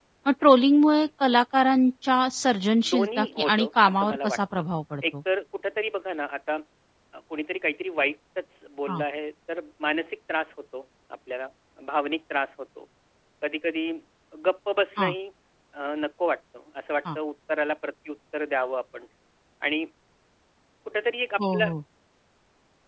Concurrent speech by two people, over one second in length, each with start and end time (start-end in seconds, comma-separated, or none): 2.9-4.6